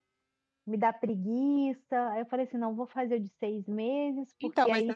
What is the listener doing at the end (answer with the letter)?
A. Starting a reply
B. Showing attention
A